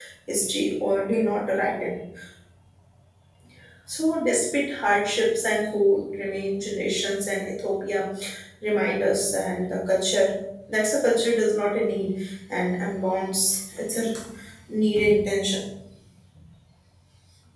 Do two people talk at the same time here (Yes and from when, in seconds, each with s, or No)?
No